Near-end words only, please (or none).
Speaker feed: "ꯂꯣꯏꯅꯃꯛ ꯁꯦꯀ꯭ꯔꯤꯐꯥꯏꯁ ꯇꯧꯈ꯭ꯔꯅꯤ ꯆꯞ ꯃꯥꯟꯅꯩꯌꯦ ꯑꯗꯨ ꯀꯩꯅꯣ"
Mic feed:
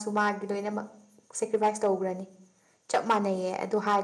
none